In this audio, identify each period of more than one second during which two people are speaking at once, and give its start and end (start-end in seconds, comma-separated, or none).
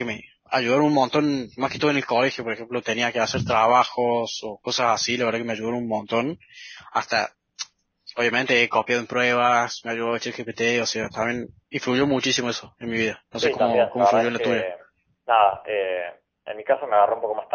13.4-14.6